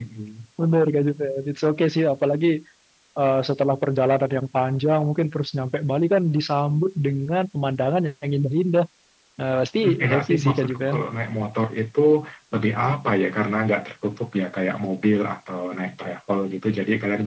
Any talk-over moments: Yes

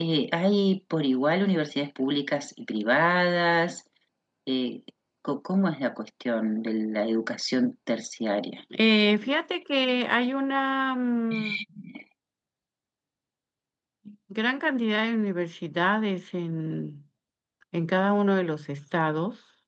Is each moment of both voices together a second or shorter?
Yes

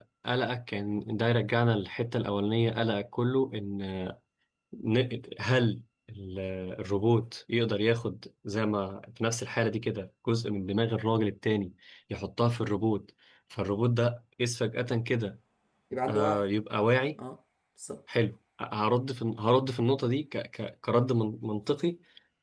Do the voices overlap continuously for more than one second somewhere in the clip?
No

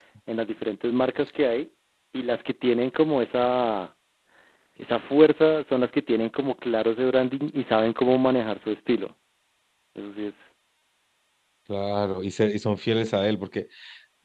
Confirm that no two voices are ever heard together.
Yes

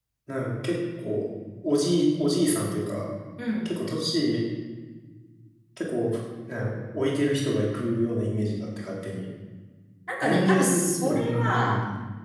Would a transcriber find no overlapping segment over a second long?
No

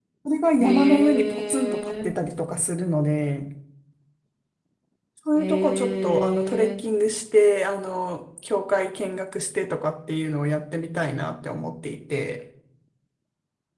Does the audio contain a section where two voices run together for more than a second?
Yes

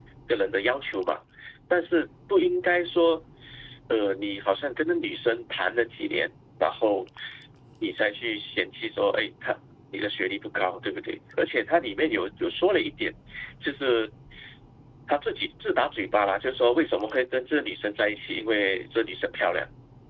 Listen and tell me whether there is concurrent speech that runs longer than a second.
No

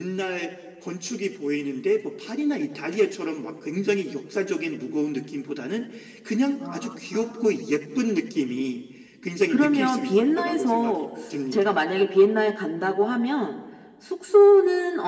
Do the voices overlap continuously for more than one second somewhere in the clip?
Yes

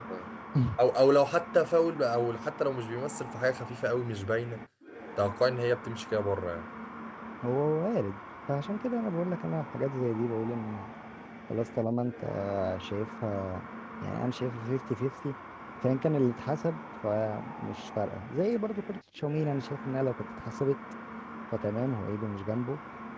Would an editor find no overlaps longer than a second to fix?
Yes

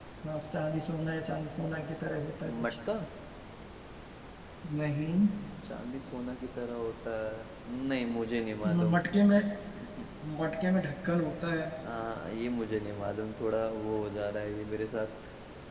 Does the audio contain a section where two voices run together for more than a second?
No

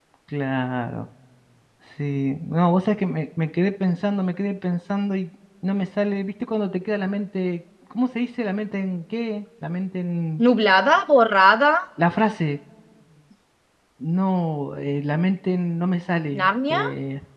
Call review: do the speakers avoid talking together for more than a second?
Yes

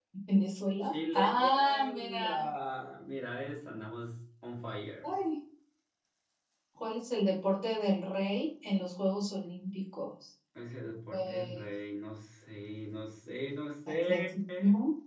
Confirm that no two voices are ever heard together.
No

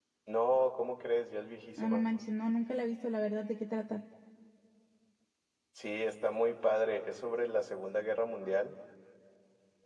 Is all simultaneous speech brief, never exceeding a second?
Yes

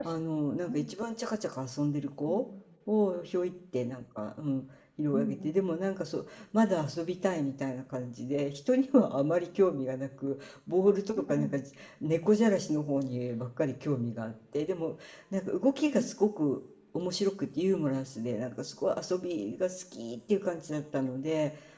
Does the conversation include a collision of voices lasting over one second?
No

